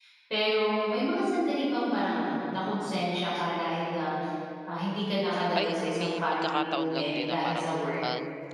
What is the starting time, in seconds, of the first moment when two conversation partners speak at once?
5.5 s

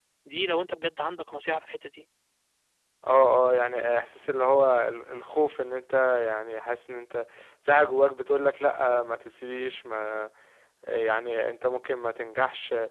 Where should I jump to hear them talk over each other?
none

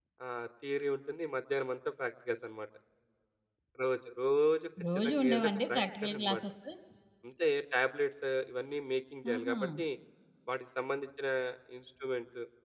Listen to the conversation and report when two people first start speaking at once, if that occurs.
5.0 s

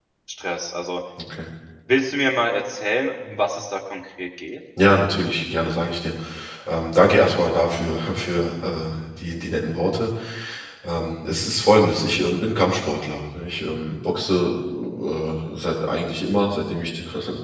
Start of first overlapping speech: none

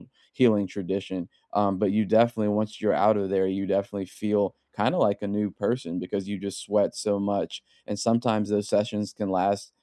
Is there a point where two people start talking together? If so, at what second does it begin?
none

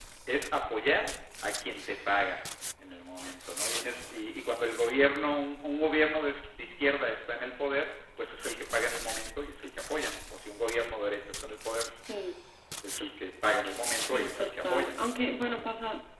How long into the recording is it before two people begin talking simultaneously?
14.0 s

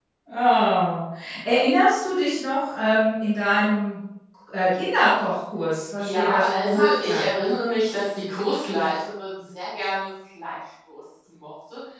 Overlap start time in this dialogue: 6.0 s

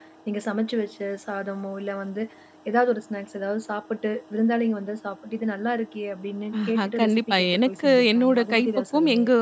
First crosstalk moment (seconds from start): 6.5 s

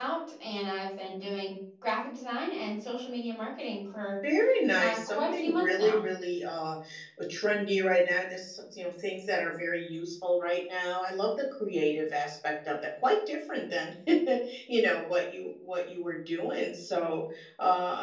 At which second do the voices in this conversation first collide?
4.8 s

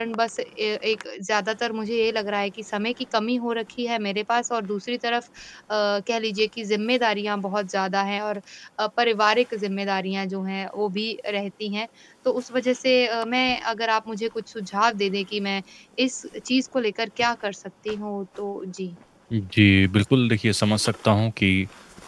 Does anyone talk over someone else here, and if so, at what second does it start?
none

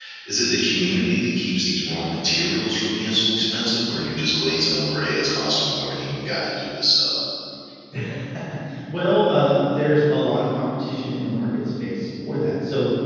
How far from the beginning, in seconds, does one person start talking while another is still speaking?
none

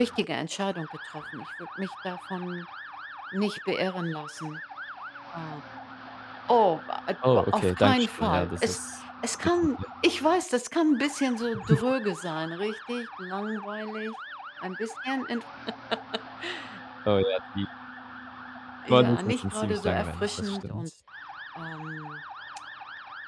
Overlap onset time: 7.2 s

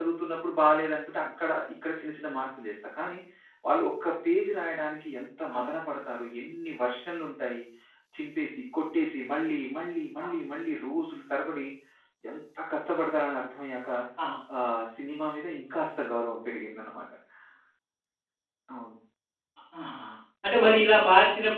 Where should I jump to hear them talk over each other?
none

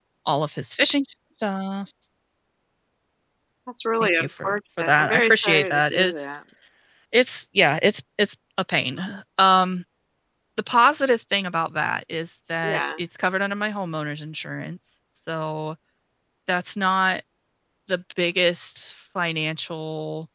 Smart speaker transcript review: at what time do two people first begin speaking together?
4.0 s

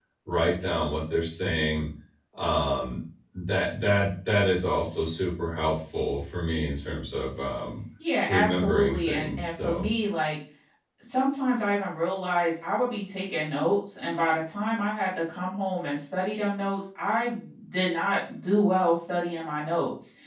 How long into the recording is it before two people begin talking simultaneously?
8.3 s

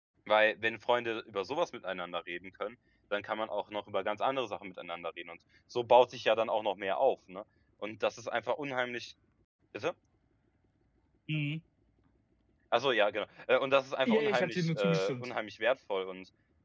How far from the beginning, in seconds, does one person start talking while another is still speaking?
14.1 s

